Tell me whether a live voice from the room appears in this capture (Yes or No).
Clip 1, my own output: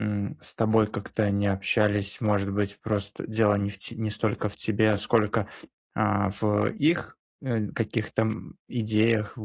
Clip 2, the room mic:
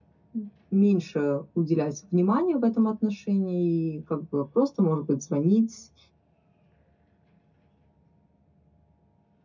Yes